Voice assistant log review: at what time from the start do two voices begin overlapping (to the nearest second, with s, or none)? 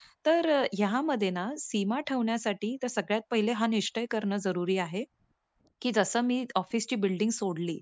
none